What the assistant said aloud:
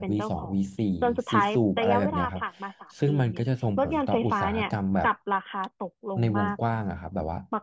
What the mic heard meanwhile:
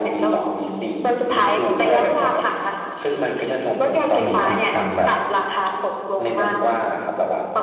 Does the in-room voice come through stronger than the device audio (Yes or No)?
No